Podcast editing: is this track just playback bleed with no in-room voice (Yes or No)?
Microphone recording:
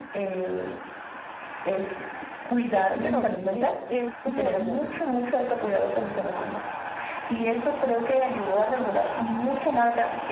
No